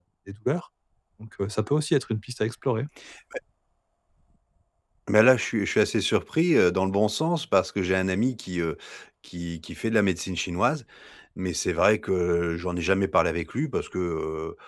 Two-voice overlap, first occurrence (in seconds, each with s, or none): none